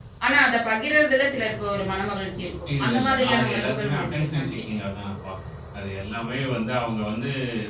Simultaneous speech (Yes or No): Yes